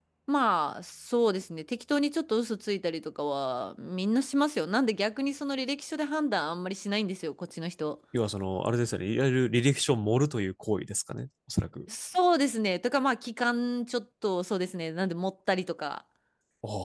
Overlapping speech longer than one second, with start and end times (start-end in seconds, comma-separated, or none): none